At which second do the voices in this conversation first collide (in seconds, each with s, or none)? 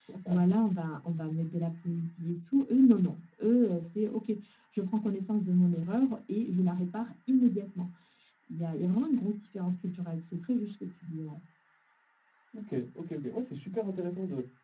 none